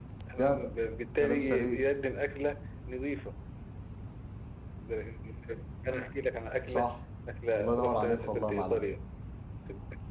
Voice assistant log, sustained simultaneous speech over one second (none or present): present